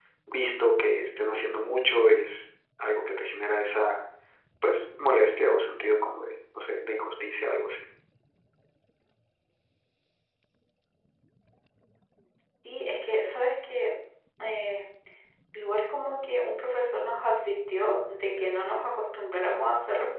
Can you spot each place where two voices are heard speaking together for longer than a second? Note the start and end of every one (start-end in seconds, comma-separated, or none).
none